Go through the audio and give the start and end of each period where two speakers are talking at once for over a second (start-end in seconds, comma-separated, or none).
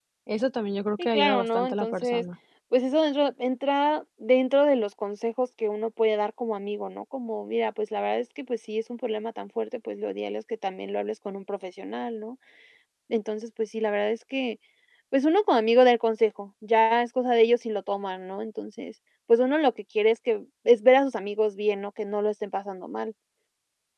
1.0-2.2